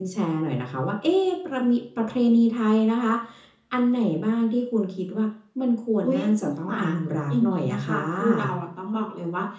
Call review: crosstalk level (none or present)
present